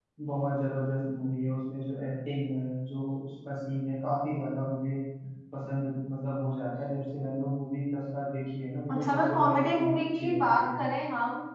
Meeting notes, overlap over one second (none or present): present